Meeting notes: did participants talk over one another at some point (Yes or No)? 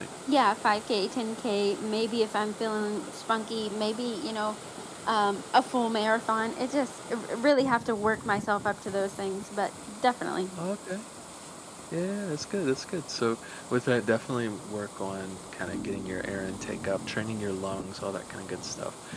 No